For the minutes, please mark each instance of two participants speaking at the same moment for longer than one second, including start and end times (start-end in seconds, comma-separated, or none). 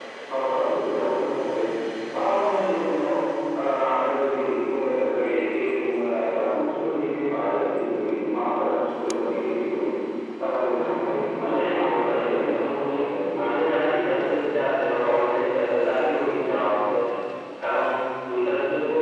11.5-12.9